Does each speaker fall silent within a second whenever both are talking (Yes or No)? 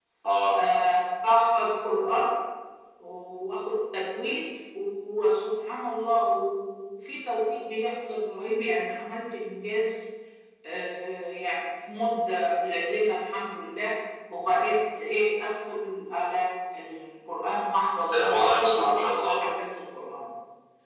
No